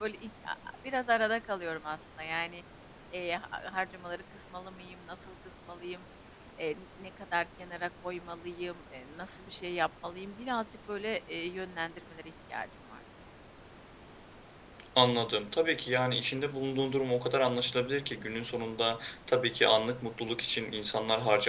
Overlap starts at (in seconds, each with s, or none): none